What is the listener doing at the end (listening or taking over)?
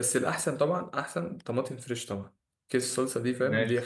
listening